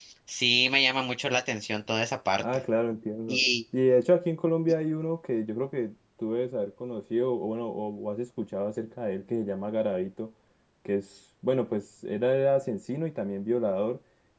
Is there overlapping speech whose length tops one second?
No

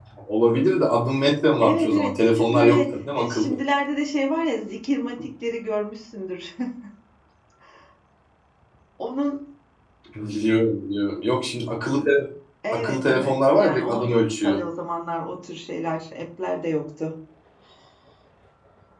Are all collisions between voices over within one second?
No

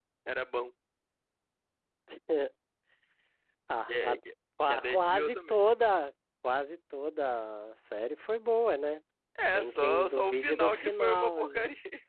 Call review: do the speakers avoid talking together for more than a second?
No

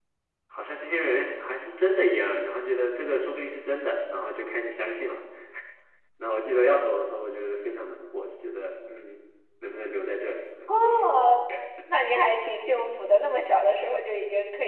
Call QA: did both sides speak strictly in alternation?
Yes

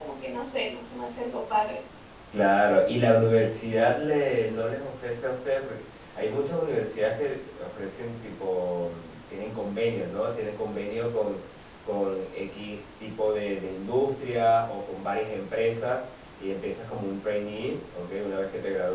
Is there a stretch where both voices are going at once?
No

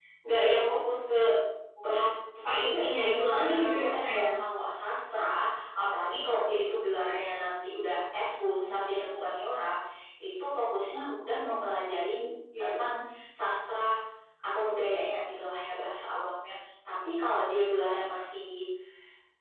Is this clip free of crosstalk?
No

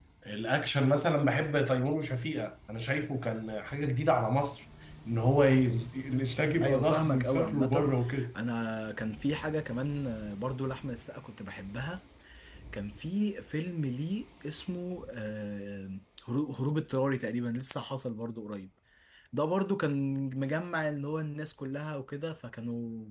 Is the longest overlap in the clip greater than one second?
Yes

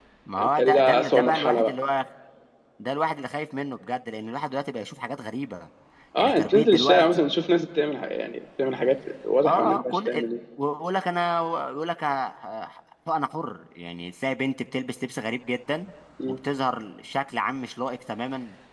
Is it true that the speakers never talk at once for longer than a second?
No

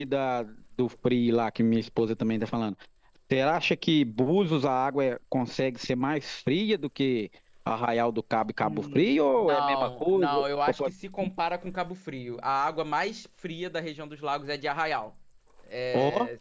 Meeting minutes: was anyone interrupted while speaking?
Yes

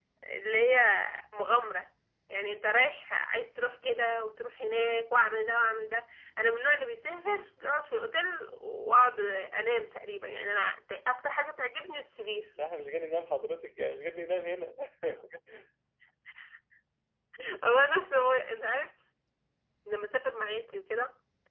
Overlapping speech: No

